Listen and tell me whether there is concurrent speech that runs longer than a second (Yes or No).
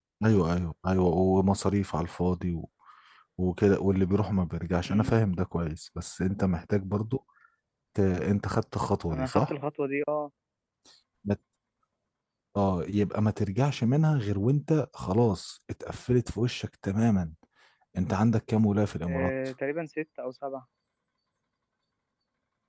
No